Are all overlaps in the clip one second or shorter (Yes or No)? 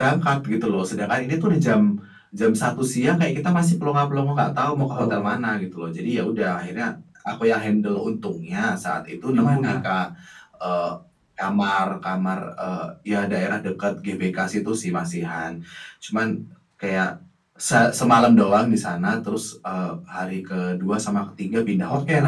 Yes